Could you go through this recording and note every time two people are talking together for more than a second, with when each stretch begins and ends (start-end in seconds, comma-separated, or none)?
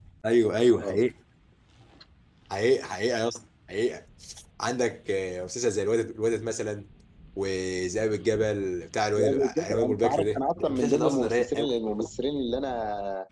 9.1-11.7